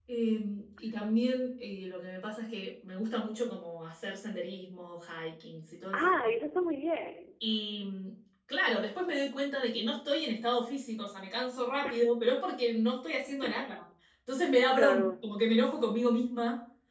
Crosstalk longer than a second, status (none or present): none